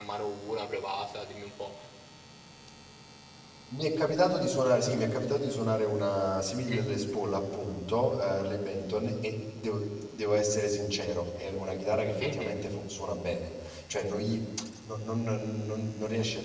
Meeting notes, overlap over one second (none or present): none